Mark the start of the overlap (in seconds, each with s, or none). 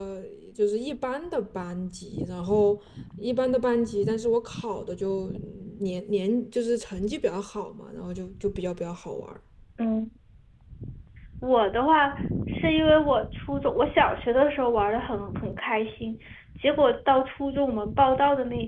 none